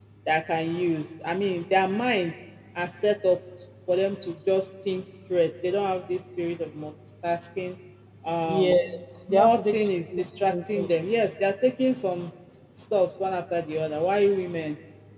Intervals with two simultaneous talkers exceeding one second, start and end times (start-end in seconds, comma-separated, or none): 9.3-10.9